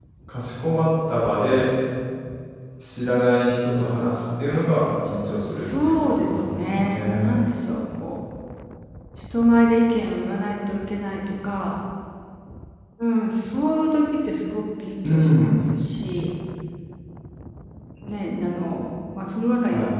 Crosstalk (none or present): present